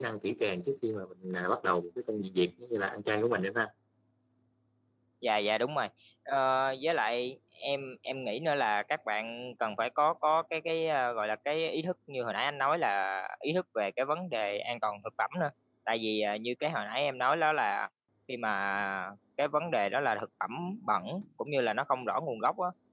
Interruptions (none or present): none